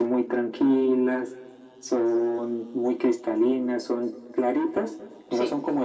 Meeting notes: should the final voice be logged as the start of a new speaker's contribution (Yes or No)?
No